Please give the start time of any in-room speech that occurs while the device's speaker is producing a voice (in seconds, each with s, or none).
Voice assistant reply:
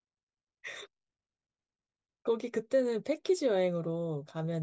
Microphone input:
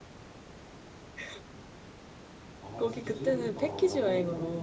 2.6 s